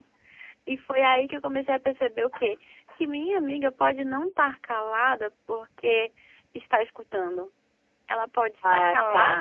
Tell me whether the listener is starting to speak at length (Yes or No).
No